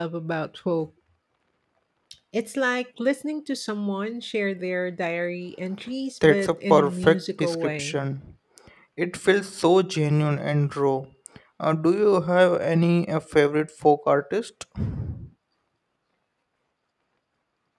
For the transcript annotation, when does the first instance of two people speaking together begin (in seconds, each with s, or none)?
6.2 s